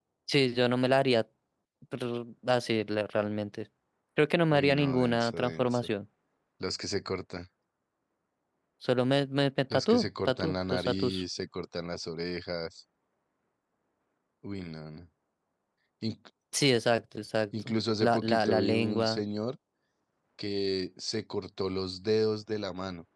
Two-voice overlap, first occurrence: 4.5 s

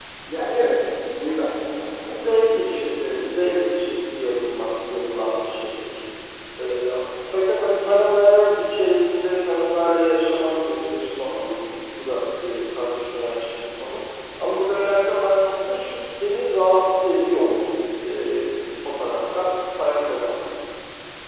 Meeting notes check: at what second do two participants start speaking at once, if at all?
2.0 s

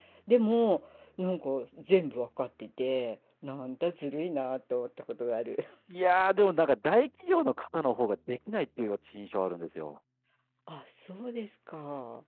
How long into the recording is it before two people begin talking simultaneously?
none

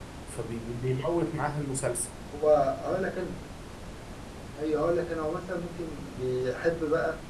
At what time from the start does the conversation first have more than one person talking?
none

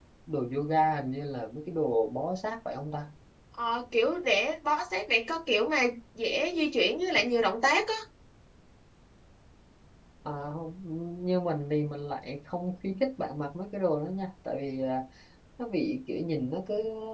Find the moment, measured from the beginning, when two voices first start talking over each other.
none

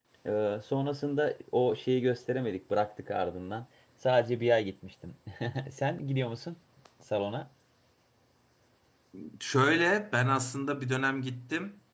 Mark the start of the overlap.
none

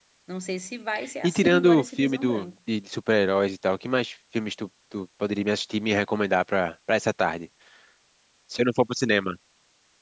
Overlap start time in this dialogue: 1.2 s

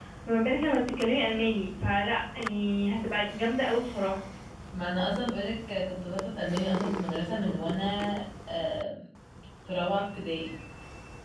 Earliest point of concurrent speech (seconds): none

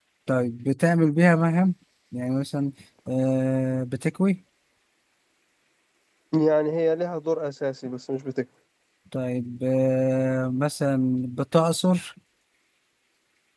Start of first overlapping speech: none

